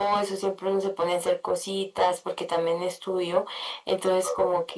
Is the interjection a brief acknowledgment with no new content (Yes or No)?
Yes